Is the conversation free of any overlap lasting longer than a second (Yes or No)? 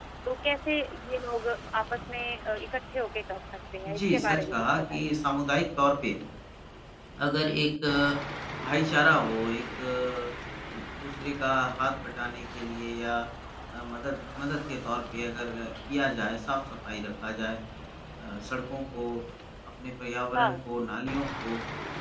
No